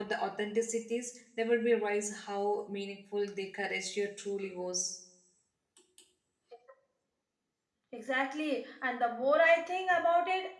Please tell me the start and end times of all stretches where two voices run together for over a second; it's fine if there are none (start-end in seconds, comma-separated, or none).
none